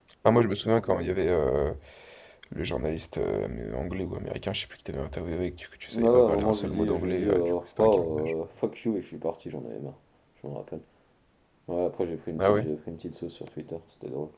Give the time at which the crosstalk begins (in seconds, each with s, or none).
5.9 s